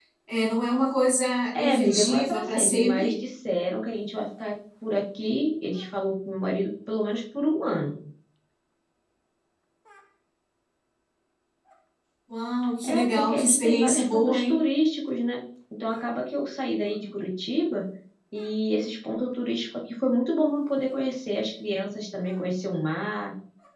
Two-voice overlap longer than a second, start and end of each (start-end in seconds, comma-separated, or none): 1.5-3.2, 12.9-14.7